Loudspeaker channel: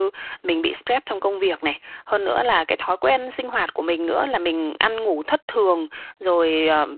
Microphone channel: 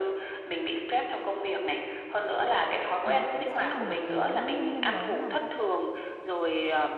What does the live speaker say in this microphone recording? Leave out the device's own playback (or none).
nó cũng sẽ là một cái nguyên nhân lớn làm cho huyết áp,